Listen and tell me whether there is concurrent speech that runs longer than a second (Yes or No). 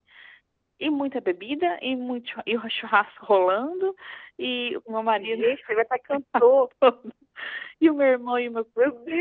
No